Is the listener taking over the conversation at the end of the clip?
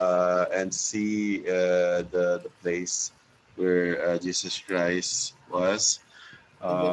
No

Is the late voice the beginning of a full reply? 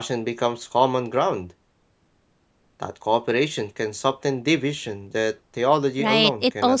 Yes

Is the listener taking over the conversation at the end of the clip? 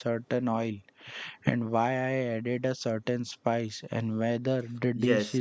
Yes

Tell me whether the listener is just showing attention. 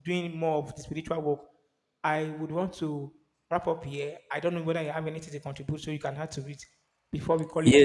No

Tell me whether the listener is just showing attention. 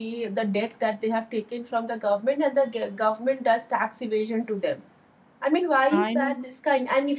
Yes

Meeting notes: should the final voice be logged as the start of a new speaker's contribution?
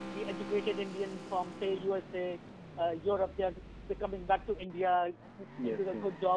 No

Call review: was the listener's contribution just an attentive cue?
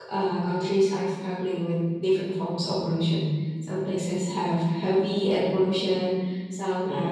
Yes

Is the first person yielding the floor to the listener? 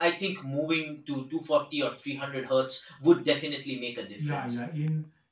Yes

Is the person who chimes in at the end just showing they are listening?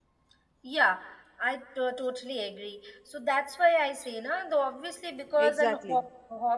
Yes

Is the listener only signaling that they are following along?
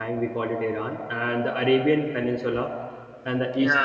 Yes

